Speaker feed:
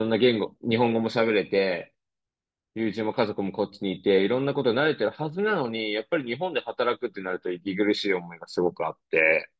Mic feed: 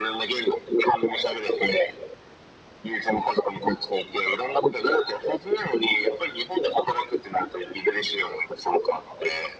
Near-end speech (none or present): none